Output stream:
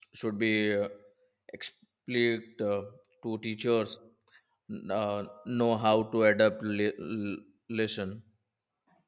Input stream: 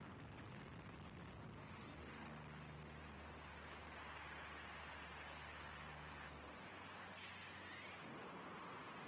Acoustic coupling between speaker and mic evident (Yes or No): No